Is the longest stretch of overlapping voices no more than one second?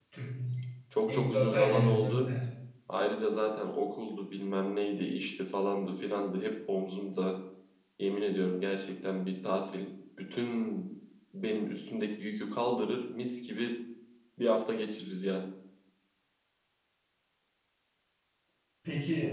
No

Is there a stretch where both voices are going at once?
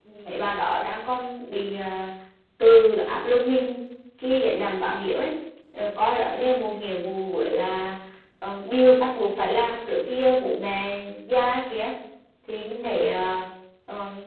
No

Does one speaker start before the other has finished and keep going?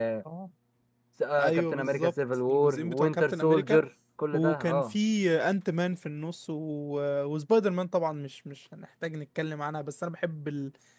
Yes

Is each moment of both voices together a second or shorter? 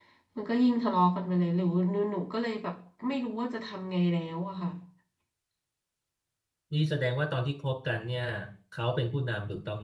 Yes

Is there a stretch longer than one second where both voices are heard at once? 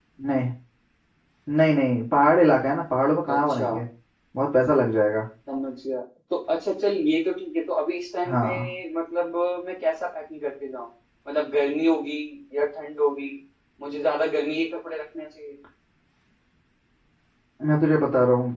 No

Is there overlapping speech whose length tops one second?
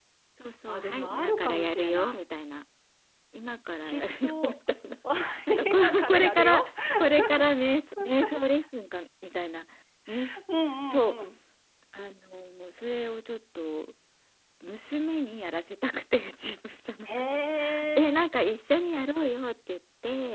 Yes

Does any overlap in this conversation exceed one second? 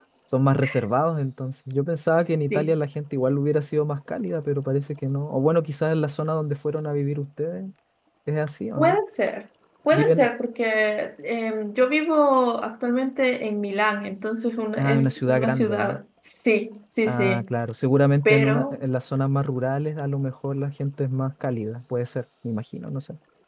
Yes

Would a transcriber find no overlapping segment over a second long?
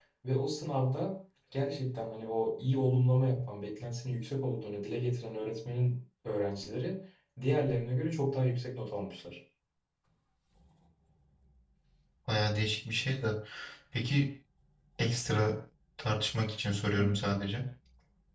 Yes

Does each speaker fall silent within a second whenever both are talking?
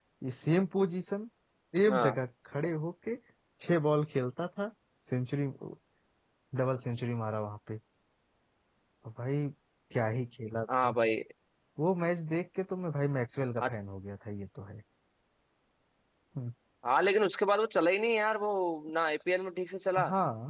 Yes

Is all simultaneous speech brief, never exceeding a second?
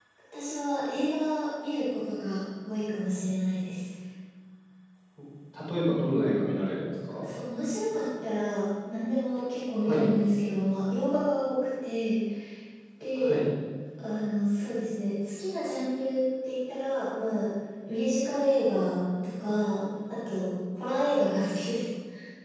Yes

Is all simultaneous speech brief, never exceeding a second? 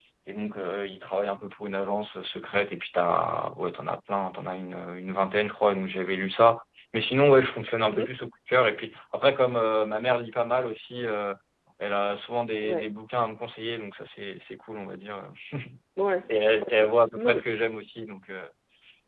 No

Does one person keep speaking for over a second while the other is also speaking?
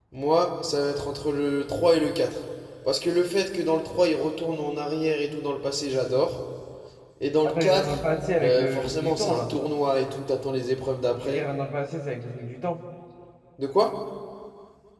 Yes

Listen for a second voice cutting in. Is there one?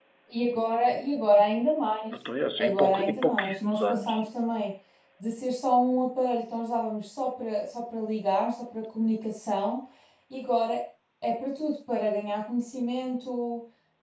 Yes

